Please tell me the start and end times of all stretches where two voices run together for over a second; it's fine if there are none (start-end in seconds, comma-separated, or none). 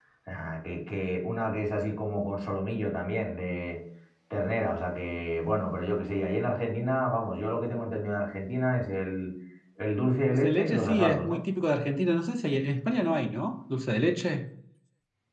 10.2-11.4